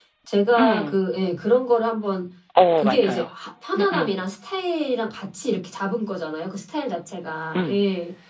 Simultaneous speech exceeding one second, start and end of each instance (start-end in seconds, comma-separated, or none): none